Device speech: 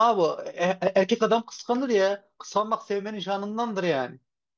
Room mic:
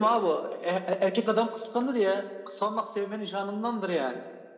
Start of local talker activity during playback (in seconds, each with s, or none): none